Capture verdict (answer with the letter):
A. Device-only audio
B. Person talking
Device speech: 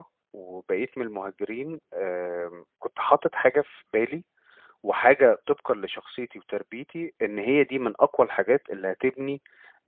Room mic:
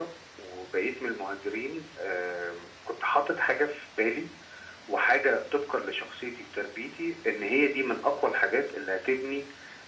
A